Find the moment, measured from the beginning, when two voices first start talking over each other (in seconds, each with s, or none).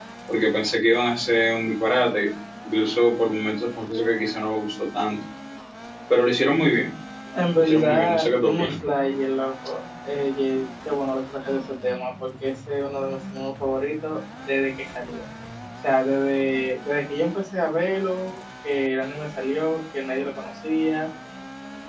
7.5 s